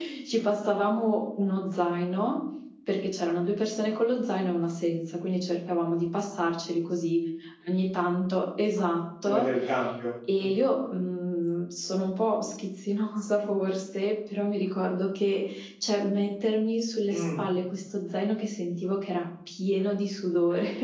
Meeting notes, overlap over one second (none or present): none